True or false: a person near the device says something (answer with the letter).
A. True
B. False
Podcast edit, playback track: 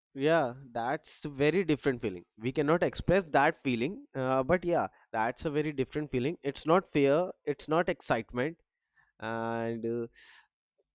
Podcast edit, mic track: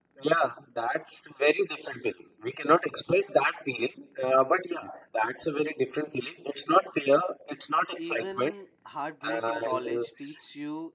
A